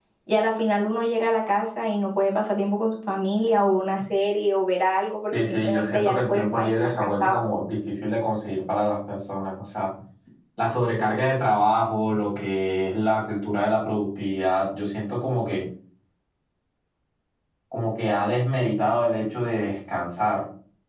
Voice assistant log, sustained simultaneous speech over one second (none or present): present